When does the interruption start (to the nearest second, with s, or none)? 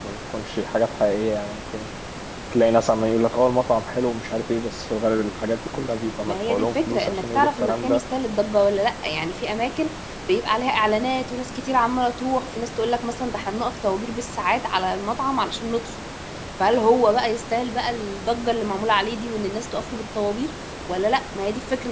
6 s